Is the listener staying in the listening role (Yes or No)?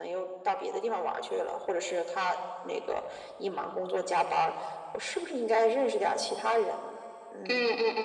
No